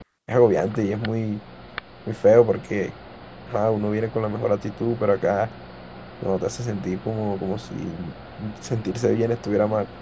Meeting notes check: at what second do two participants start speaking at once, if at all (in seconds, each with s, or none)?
none